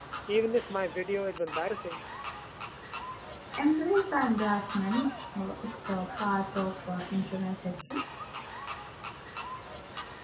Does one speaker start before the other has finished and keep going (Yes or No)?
No